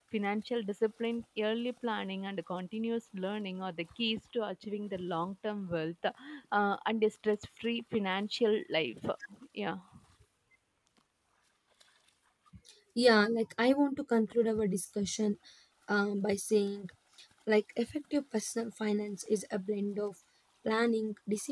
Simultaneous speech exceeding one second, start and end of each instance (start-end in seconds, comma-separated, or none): none